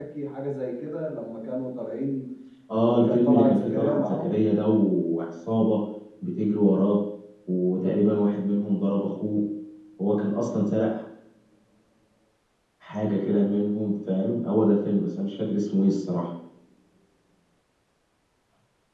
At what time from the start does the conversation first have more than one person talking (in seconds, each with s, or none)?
2.8 s